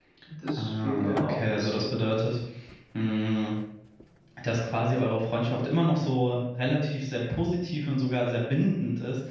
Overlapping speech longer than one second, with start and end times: 0.6-1.9

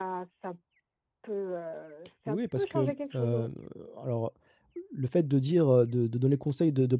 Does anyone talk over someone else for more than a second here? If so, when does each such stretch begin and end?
2.3-3.5

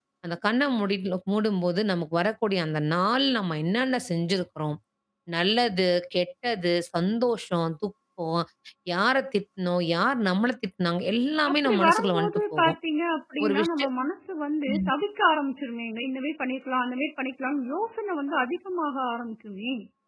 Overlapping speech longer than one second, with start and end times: 11.5-12.8

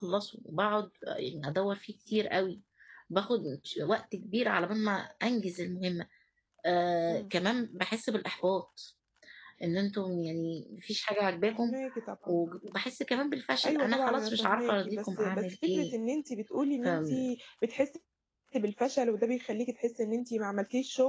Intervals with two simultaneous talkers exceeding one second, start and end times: 13.6-15.9

